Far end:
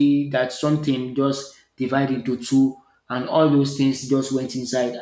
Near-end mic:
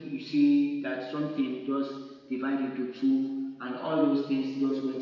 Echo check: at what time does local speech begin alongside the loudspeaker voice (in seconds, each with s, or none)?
none